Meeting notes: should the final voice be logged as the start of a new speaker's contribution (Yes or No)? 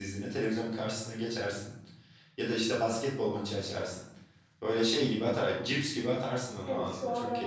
Yes